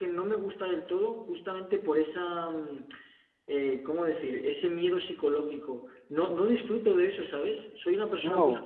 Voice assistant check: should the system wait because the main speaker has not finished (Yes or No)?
Yes